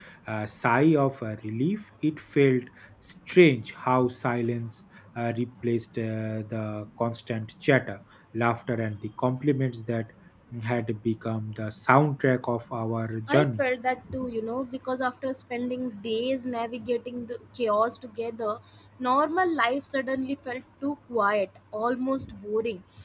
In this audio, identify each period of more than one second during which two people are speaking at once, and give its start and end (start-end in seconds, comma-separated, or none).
none